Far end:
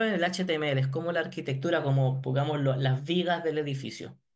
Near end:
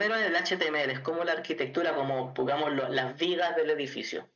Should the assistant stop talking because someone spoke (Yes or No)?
No